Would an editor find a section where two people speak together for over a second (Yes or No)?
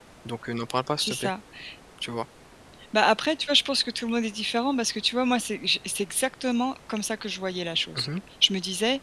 No